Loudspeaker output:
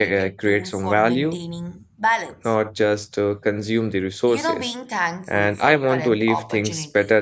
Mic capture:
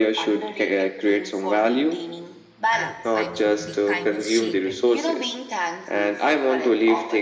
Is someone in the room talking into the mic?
Yes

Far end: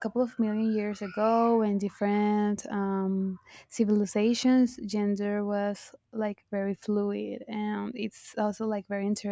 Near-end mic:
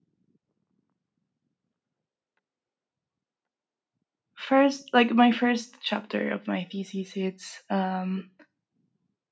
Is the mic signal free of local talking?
No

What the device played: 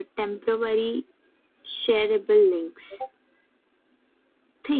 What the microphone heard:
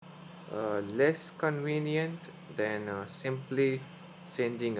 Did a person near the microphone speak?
Yes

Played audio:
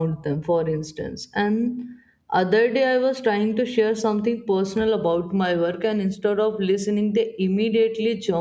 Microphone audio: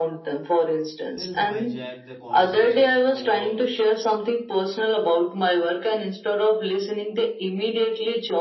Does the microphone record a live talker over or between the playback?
Yes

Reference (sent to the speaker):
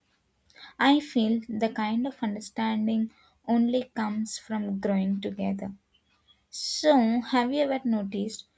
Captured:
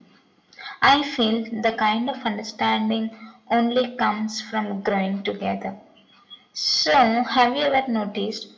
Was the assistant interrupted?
No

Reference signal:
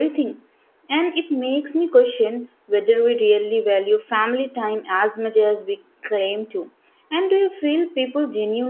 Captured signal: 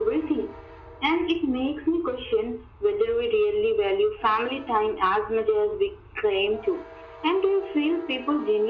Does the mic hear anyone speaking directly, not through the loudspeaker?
No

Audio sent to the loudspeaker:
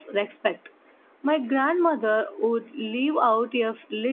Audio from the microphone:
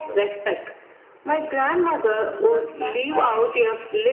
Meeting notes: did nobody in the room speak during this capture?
No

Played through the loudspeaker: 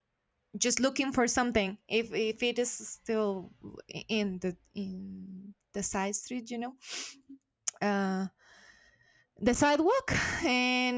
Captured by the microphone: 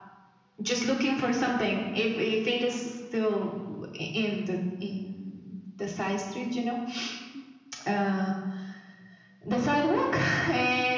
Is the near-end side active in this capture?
No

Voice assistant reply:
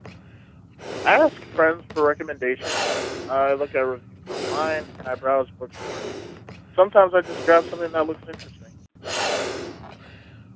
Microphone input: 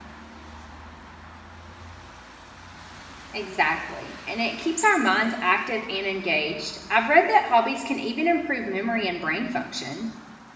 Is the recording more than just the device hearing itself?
Yes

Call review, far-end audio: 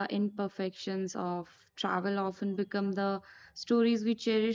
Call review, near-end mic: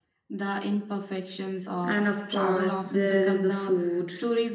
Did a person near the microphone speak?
Yes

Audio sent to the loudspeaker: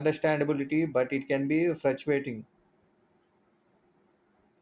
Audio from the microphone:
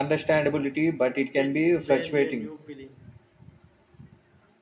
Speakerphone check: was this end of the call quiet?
No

